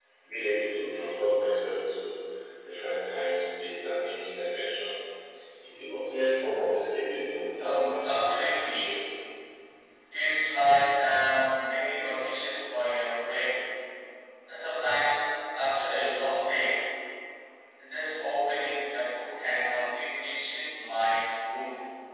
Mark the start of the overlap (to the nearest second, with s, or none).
8 s